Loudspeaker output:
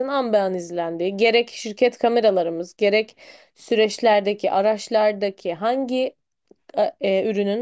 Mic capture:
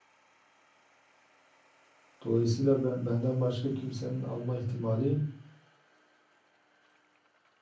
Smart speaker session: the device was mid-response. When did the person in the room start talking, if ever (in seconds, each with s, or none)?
2.2 s